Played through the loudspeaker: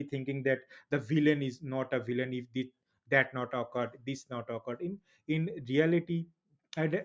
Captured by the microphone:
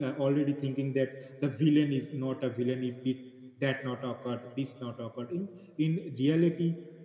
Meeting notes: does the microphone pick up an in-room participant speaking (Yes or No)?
No